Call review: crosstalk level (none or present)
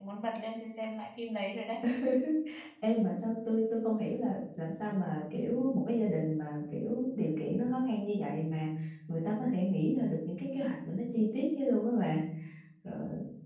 none